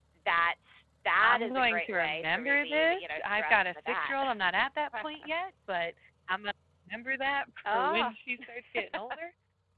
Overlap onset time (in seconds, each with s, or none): 1.2 s